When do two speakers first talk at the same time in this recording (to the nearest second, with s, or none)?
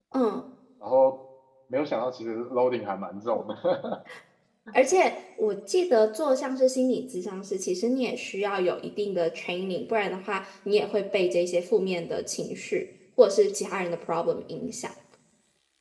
none